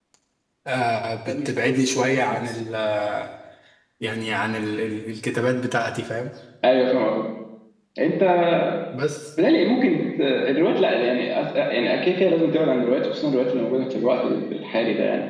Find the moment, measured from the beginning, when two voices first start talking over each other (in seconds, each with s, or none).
none